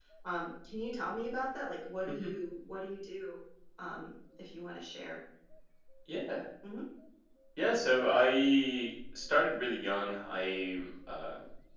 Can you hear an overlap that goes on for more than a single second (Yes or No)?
No